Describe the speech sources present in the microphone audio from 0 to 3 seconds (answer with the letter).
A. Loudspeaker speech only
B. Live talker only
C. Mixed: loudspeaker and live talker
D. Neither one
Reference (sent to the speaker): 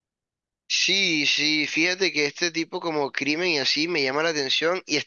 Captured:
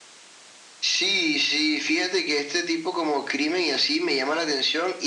A